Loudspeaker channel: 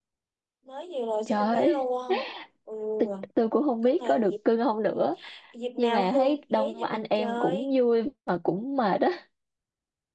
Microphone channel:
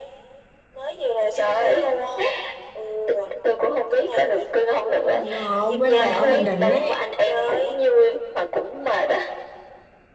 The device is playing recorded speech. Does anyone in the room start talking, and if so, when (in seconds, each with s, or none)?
4.8 s